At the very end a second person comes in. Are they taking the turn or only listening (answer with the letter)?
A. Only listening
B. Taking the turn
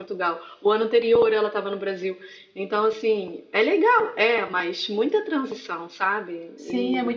B